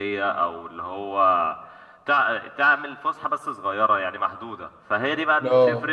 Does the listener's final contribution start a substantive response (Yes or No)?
No